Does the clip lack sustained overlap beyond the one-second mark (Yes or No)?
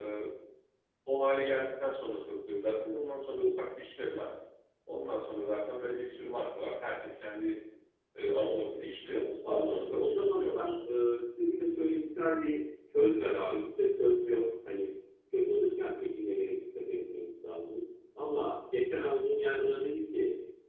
No